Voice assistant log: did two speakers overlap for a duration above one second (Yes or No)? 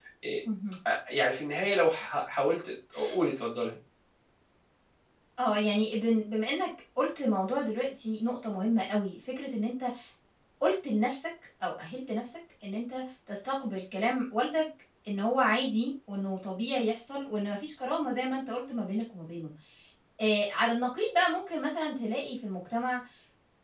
No